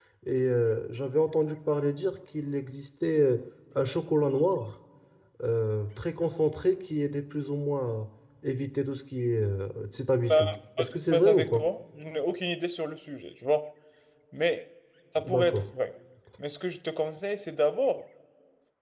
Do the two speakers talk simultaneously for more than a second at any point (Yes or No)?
No